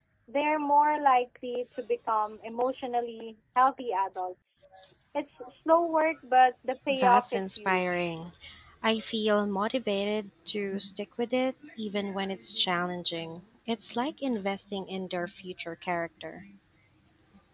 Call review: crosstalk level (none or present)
present